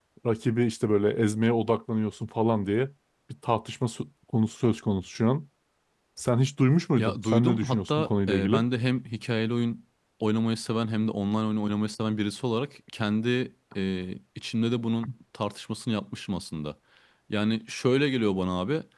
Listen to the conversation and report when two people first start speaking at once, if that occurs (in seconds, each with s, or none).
7.0 s